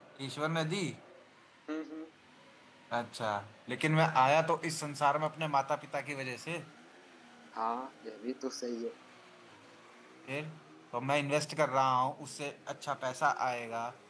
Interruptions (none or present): none